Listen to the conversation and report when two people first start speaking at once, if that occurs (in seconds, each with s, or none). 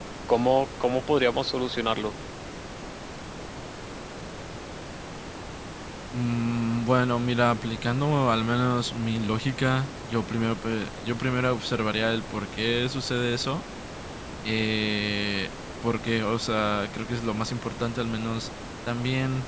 none